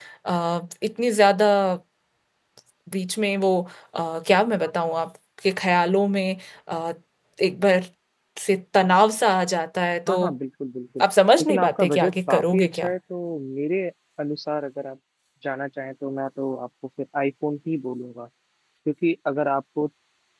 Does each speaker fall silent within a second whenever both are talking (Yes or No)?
No